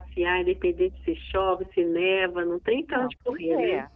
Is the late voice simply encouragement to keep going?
No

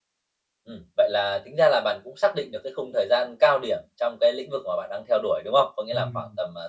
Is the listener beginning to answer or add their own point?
No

